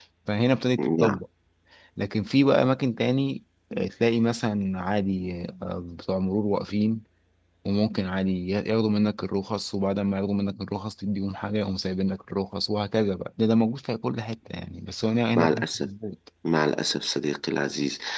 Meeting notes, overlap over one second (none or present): none